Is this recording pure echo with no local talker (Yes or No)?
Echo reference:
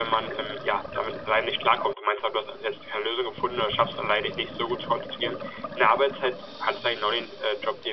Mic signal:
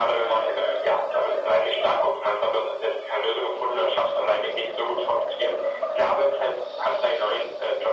Yes